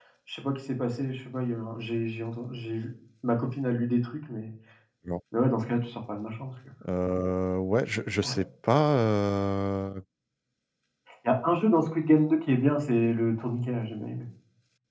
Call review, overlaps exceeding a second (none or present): none